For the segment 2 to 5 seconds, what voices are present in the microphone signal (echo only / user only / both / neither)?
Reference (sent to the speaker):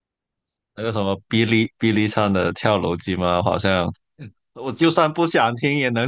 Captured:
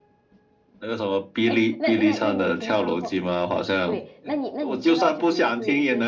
both